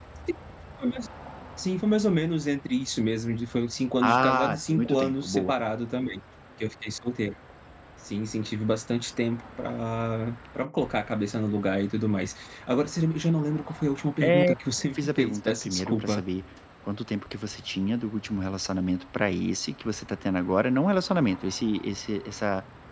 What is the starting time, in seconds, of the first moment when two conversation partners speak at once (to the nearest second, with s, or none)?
4 s